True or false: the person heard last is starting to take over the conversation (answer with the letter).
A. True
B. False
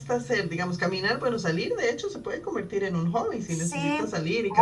A